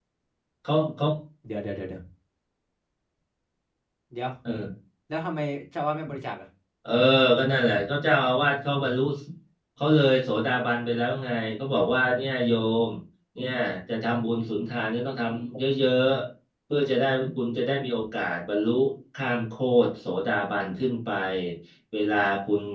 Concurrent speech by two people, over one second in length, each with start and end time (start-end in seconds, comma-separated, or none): none